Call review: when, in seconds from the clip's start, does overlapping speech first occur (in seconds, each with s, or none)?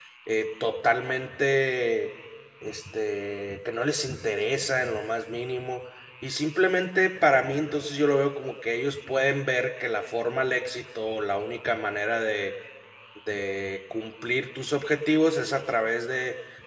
none